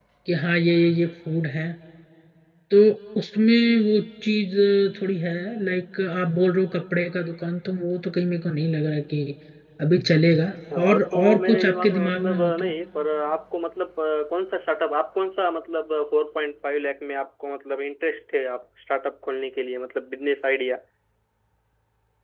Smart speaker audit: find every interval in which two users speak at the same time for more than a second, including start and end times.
10.8-12.7

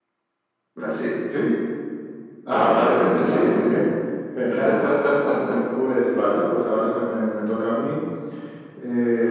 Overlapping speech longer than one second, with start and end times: 2.5-3.7

